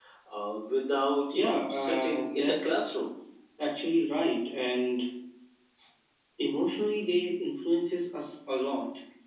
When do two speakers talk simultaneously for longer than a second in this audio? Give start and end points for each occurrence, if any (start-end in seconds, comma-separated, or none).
1.3-2.9